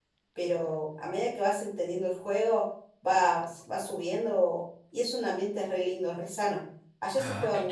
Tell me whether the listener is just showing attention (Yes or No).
No